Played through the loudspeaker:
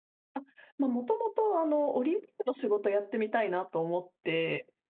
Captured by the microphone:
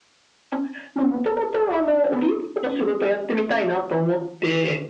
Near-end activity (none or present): none